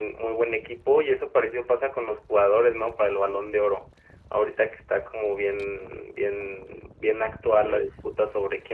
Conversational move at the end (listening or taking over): listening